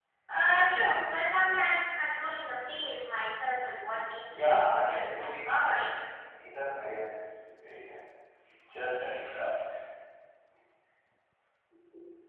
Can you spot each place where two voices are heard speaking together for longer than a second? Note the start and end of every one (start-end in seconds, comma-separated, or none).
4.3-5.9